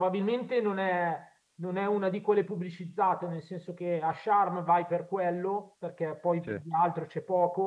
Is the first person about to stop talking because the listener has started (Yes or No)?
No